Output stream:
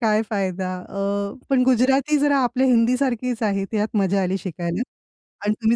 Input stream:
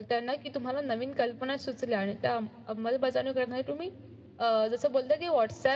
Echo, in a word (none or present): none